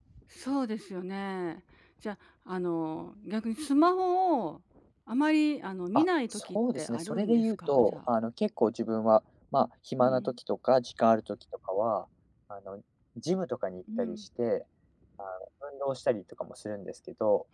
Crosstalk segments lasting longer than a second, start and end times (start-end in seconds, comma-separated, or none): 6.0-8.0